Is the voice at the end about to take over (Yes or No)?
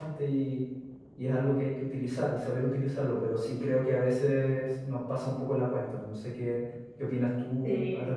Yes